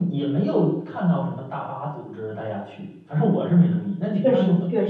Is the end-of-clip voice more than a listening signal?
Yes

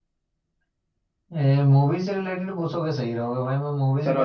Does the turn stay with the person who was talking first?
No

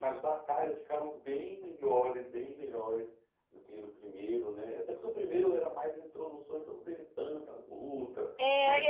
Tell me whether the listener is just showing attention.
No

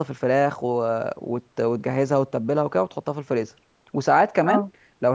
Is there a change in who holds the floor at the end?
No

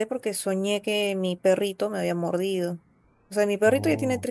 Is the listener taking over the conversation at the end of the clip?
No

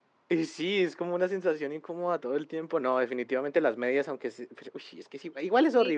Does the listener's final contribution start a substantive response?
Yes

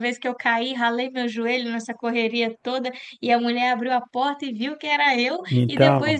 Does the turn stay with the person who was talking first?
Yes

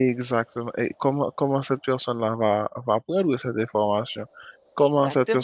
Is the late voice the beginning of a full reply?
No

